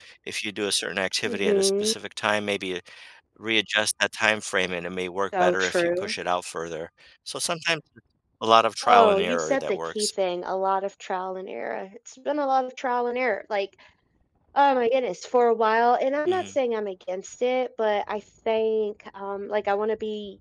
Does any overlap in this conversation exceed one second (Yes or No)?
Yes